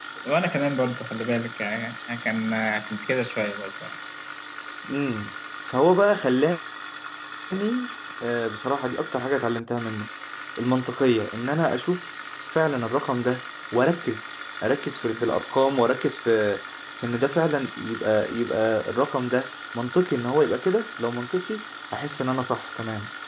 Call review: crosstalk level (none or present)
none